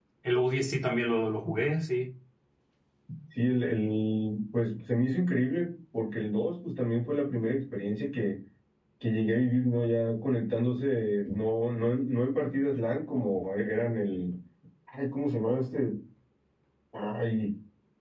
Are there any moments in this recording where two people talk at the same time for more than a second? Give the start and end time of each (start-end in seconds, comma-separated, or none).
none